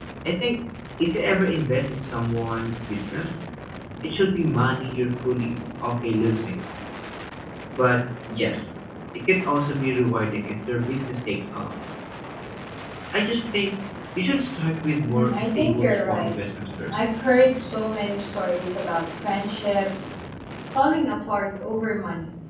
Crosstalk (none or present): present